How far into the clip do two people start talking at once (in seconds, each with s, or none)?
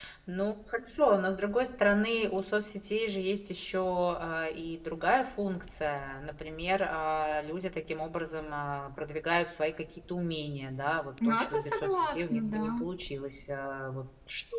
11.2 s